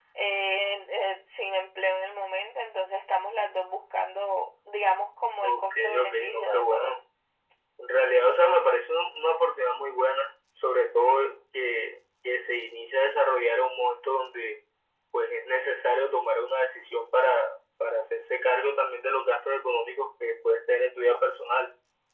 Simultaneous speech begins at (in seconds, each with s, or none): 5.4 s